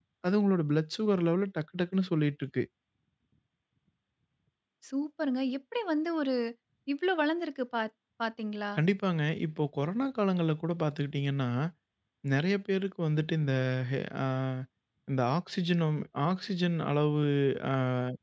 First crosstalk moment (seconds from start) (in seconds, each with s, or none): none